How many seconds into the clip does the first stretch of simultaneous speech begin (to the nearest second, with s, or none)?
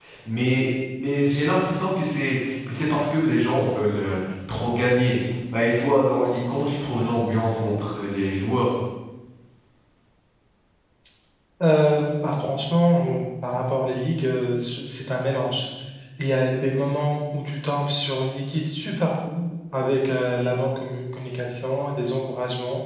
none